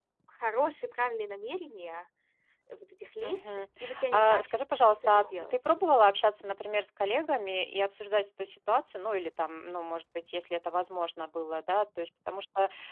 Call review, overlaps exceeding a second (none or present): present